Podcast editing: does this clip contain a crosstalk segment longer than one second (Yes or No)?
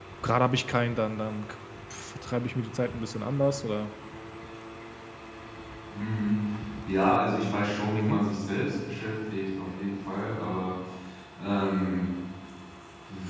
No